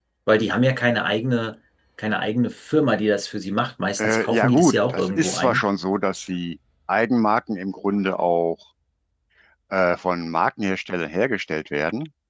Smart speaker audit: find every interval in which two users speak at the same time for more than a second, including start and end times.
4.0-5.6

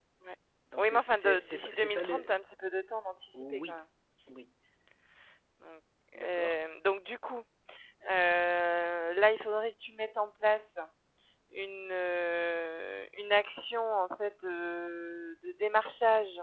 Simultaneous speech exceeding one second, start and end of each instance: 0.8-2.3

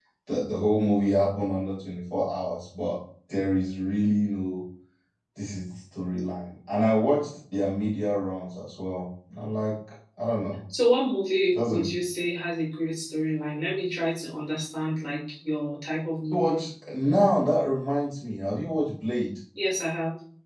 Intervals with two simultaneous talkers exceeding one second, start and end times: none

